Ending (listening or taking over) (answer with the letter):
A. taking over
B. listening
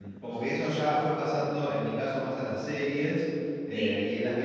B